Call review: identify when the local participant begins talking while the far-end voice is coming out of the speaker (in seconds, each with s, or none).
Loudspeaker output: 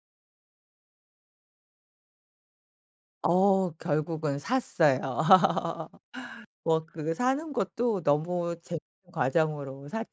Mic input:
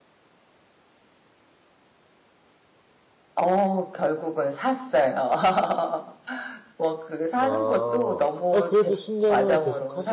7.4 s